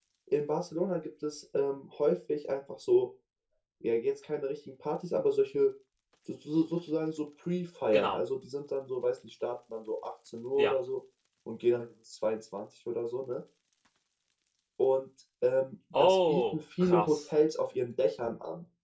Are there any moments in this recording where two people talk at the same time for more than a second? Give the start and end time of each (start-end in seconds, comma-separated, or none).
16.0-17.2